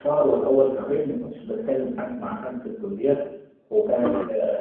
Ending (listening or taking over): listening